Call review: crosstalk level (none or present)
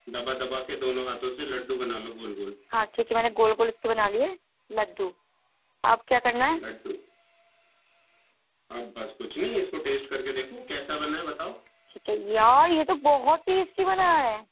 none